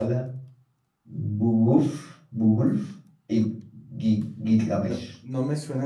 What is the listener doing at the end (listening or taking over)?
taking over